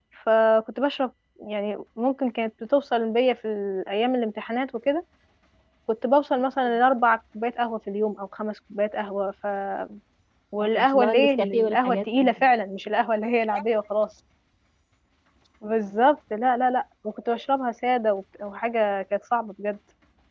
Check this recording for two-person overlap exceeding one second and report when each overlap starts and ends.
10.6-12.4

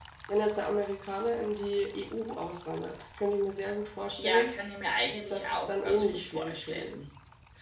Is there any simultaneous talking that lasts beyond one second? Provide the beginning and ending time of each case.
5.3-7.0

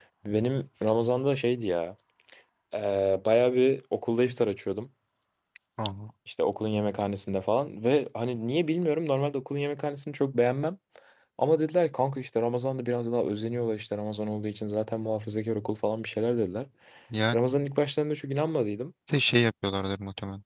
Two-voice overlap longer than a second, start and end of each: none

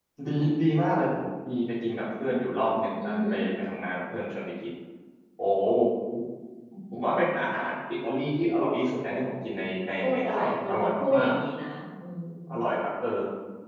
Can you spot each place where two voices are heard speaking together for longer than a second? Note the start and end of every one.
10.0-11.3

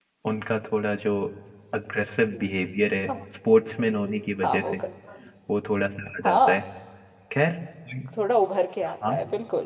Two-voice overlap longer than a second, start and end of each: none

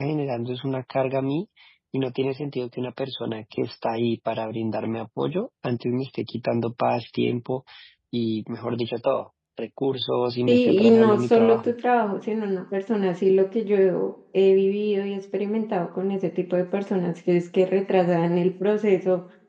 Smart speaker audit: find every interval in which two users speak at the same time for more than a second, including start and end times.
10.5-11.7

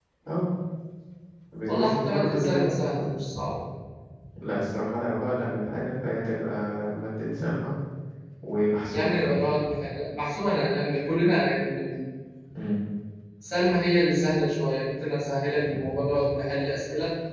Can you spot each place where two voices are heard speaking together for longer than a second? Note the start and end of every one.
1.7-3.1

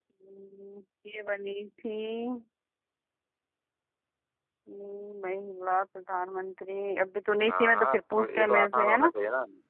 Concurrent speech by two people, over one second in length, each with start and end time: 7.5-9.1

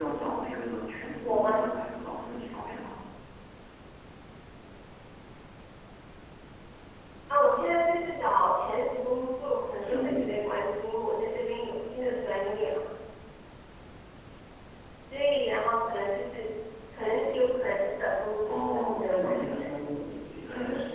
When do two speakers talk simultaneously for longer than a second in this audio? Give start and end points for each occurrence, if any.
18.4-19.7

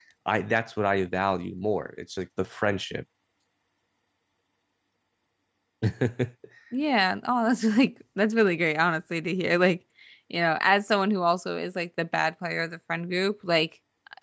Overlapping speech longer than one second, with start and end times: none

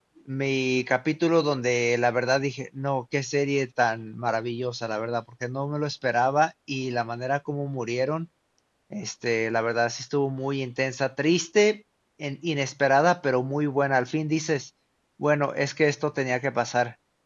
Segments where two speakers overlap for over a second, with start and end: none

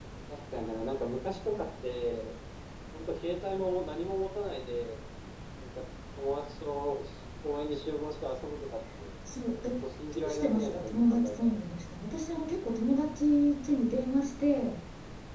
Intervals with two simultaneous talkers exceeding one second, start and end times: 10.1-11.5

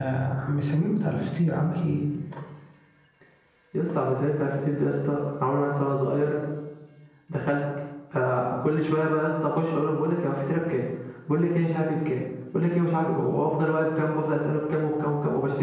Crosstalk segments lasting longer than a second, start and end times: none

